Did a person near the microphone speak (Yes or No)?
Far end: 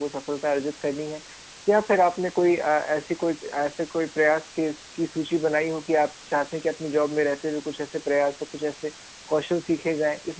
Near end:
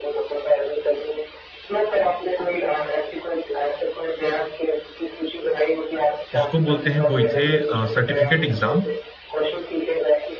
Yes